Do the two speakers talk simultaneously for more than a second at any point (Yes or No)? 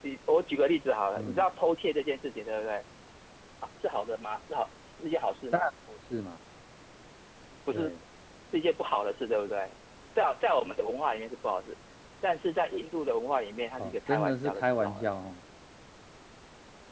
Yes